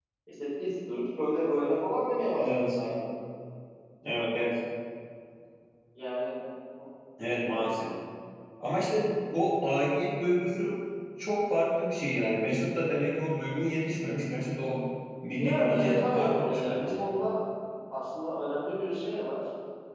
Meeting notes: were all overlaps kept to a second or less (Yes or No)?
No